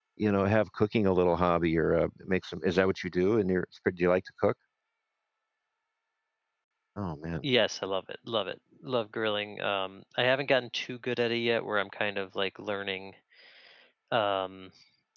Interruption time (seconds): none

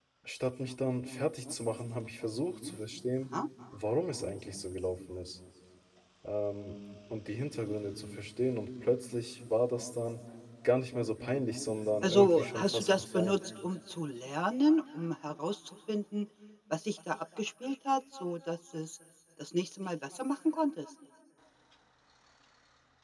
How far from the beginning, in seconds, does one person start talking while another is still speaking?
12 s

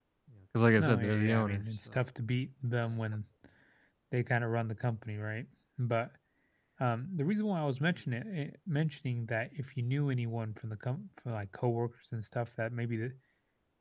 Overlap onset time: 1 s

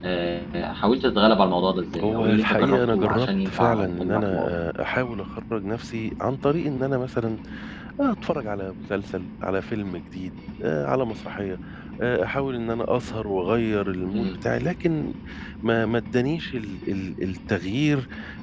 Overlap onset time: 2 s

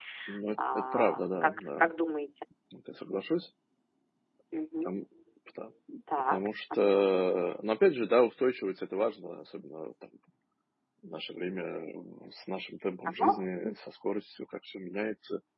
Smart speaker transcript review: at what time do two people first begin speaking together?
1 s

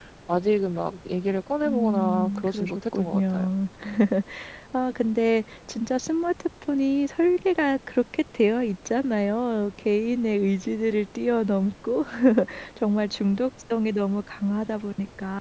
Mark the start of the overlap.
2 s

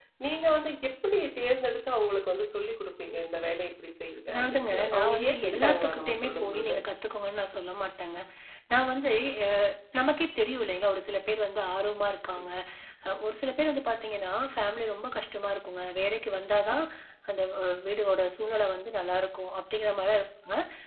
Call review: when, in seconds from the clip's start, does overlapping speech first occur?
4 s

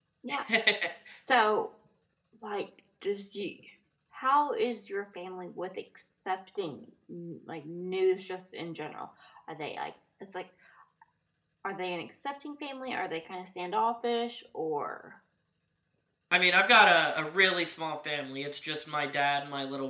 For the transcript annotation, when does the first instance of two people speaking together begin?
none

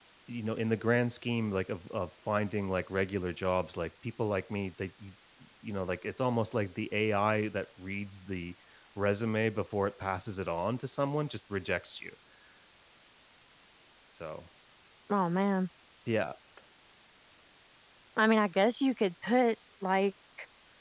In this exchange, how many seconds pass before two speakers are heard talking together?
none

